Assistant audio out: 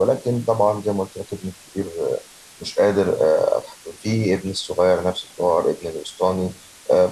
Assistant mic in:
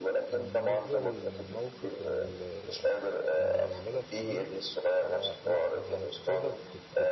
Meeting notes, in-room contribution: present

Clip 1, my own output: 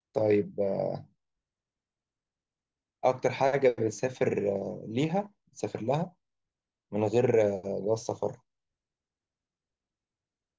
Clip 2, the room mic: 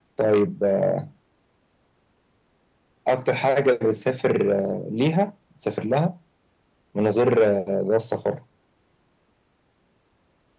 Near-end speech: none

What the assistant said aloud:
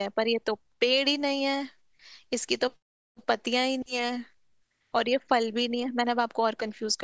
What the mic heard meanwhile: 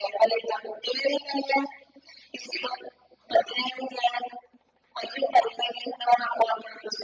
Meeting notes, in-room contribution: none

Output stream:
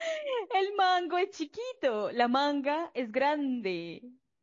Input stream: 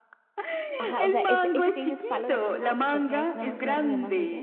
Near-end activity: present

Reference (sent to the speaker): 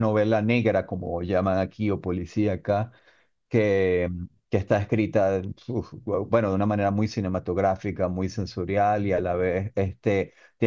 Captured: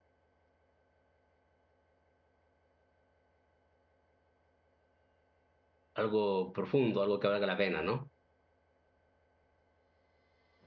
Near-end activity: present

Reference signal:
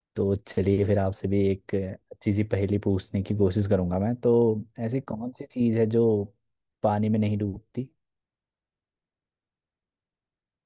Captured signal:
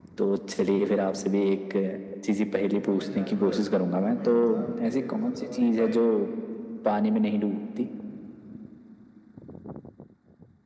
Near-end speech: present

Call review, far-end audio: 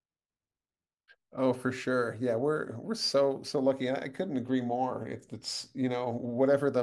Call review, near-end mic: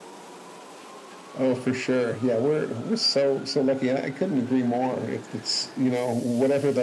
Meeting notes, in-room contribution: none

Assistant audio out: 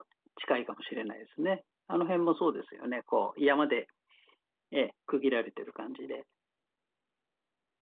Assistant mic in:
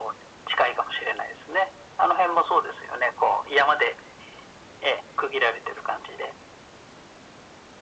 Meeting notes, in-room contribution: none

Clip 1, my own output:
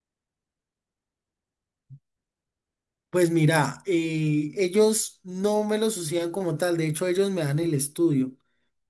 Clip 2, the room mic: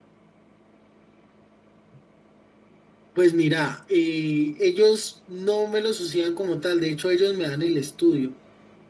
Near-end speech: none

